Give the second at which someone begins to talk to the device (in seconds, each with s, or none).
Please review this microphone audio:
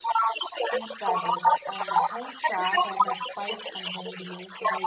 0.6 s